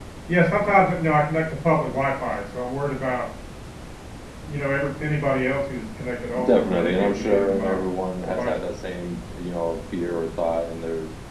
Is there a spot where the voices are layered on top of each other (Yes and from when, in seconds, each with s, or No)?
Yes, from 6.5 s